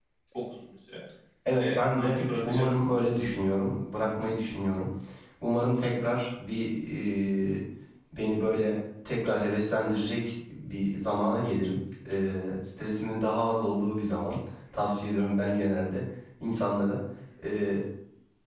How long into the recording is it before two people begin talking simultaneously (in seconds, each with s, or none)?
1.5 s